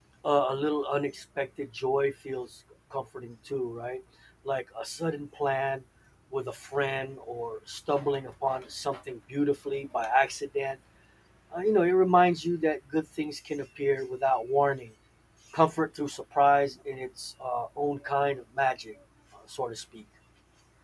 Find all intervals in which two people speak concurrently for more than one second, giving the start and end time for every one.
none

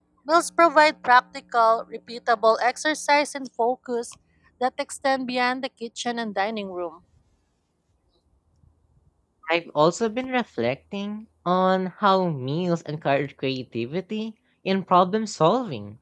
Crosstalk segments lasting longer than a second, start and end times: none

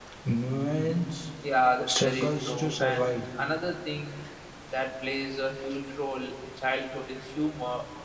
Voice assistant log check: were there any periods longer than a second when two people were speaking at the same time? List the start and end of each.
1.9-3.2

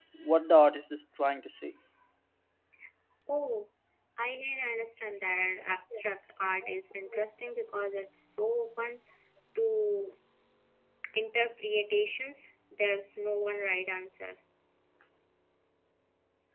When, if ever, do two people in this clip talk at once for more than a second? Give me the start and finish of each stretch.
none

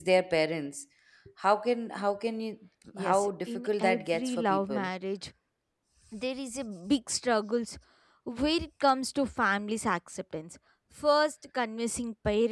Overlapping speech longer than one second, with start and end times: 3.0-4.9

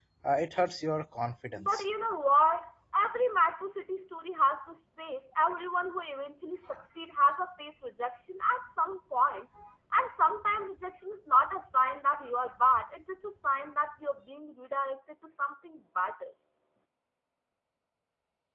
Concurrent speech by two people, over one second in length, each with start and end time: none

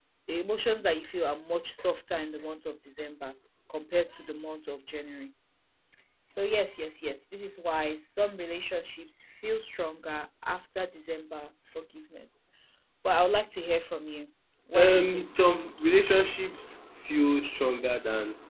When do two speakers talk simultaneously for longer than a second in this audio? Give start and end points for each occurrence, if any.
14.7-16.3

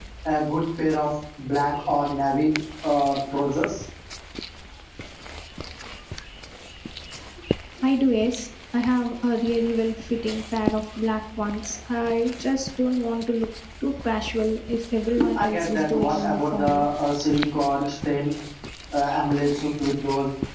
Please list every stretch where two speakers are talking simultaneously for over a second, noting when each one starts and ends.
15.3-16.9

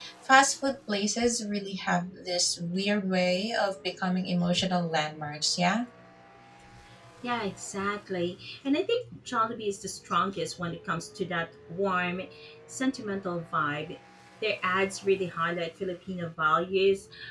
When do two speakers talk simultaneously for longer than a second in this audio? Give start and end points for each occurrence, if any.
none

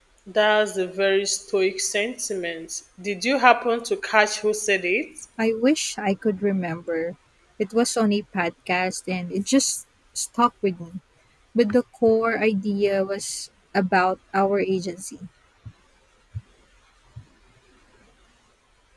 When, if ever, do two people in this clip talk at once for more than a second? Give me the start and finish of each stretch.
none

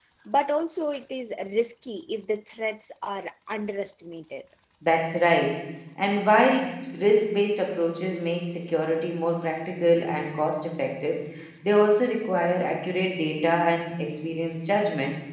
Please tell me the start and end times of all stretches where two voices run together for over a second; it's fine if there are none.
none

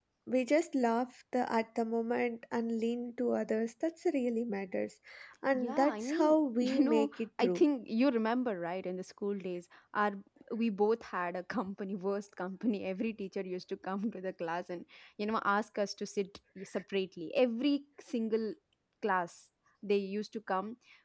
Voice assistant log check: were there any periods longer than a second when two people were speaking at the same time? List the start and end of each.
5.5-7.6

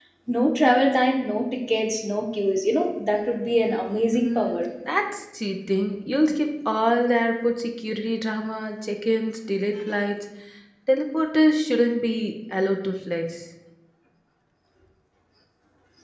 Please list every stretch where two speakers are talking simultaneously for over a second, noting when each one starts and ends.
none

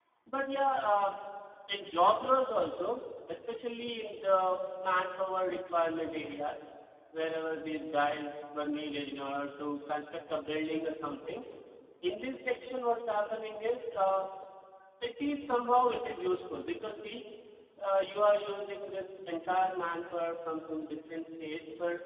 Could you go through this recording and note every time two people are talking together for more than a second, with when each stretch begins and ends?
none

